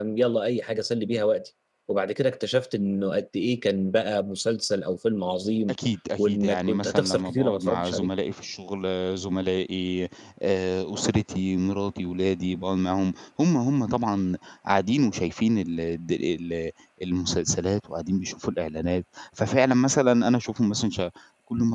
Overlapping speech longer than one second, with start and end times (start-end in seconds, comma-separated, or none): 6.2-8.1